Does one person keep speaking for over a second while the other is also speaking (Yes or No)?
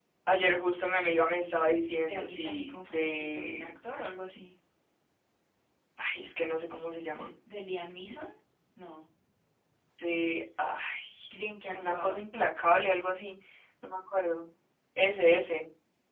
Yes